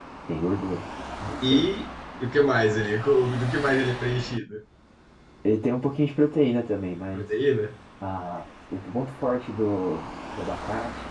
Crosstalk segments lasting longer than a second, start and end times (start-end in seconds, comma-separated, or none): none